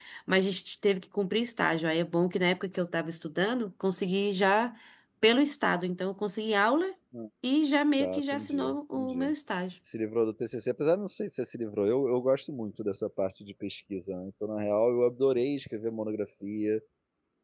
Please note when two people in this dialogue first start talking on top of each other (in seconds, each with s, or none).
8.0 s